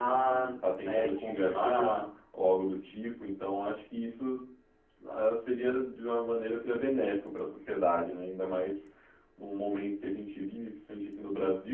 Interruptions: present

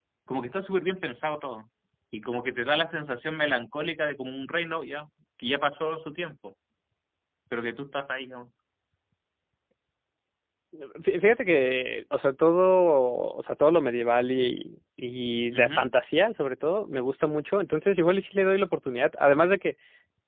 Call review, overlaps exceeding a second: none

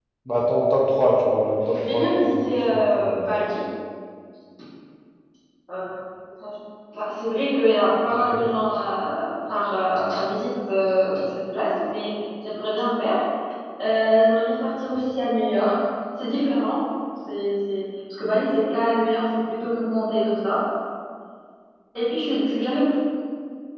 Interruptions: present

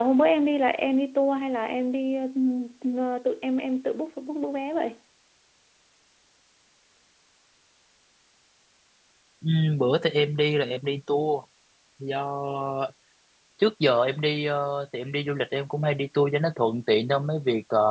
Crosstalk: none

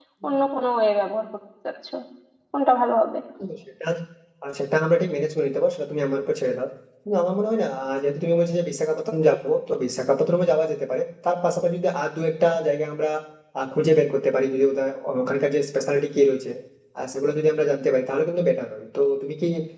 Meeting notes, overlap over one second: none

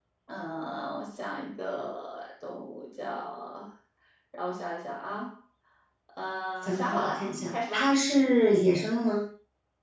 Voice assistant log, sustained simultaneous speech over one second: present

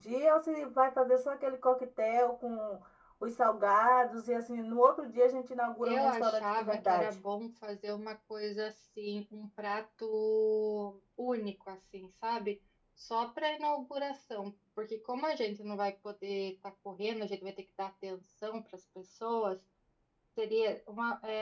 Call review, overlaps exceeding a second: present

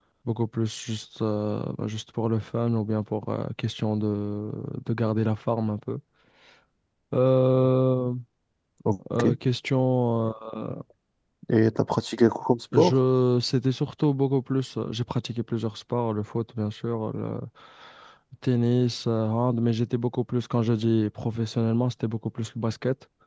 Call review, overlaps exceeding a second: none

